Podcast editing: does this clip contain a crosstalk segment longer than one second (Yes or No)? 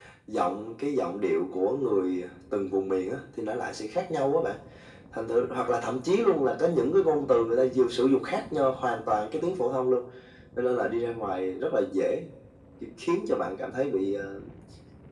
No